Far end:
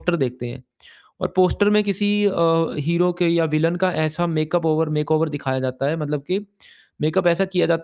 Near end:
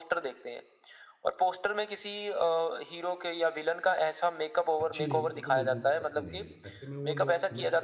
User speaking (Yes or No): Yes